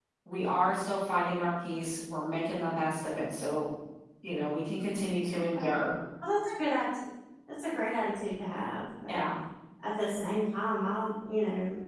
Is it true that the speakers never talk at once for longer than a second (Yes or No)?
Yes